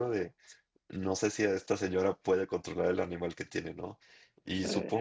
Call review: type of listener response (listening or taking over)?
listening